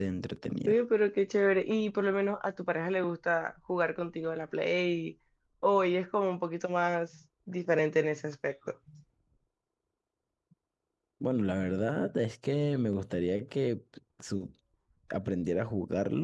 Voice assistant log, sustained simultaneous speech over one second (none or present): none